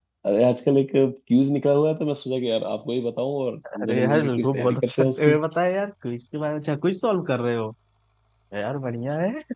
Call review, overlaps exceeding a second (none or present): present